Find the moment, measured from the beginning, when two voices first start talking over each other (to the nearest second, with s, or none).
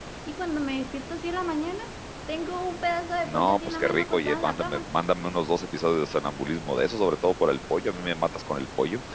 3 s